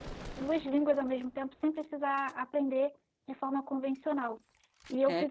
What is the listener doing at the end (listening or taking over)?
listening